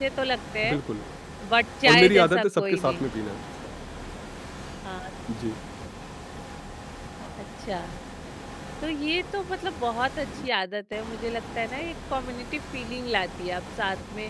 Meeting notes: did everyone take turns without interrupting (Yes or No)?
No